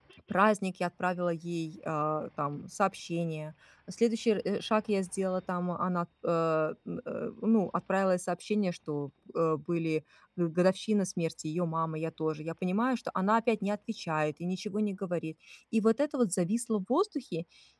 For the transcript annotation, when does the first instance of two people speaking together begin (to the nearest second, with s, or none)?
none